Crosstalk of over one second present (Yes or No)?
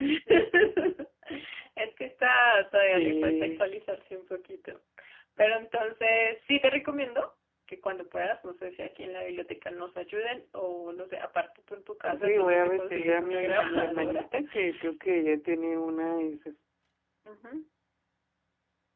Yes